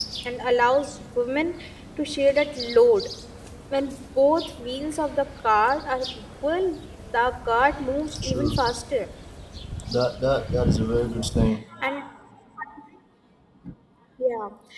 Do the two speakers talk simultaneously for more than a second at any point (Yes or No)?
No